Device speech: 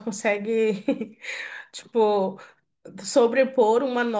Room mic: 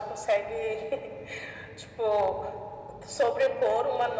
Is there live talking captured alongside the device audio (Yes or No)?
No